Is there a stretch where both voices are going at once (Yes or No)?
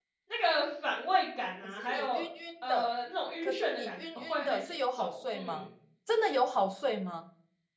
Yes